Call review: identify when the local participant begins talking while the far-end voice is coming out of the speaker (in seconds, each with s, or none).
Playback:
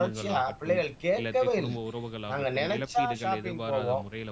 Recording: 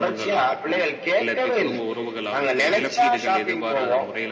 none